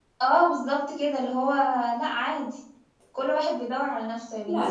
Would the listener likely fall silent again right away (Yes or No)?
No